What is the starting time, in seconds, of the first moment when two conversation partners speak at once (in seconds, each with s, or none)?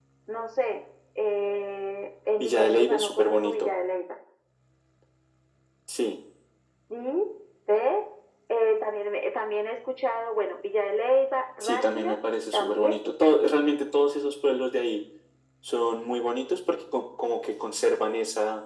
2.4 s